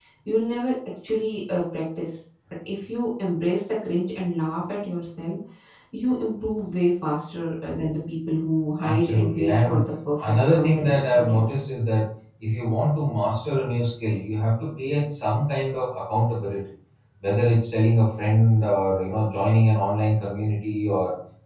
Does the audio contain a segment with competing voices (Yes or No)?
Yes